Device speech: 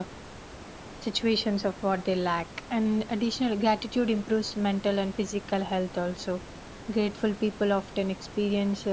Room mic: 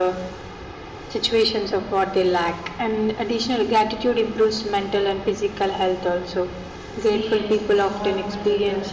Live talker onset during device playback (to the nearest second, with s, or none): 7 s